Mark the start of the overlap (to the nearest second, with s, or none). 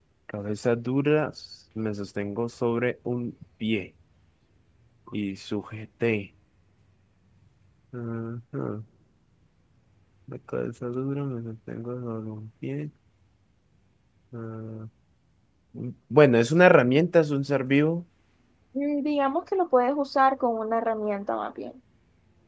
none